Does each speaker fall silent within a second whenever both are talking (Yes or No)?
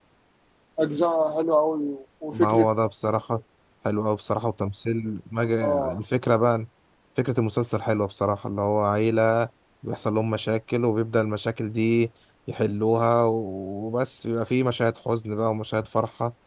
Yes